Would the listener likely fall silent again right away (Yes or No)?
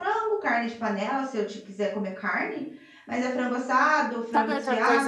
No